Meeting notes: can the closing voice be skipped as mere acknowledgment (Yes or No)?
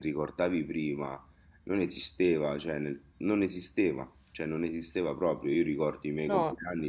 Yes